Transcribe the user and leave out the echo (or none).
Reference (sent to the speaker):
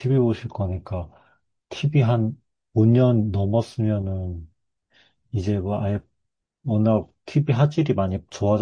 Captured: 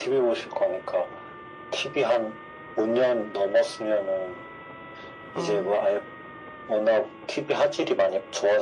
어,